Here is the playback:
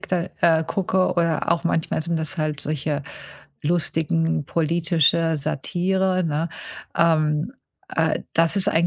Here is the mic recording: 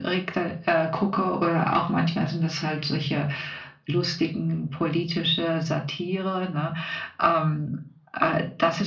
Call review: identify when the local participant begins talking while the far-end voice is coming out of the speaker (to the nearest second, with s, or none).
none